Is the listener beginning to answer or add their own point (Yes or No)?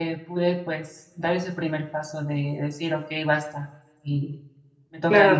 Yes